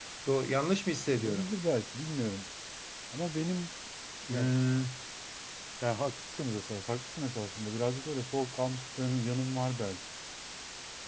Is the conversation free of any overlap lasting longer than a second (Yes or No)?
Yes